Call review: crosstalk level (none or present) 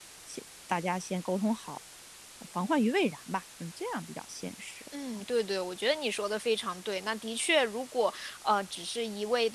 none